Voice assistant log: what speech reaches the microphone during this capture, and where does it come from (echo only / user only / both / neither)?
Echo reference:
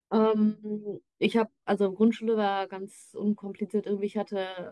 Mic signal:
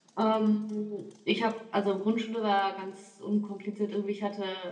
echo only